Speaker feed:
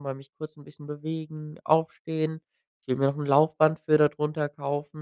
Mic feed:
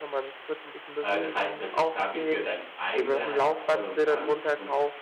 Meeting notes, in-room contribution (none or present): present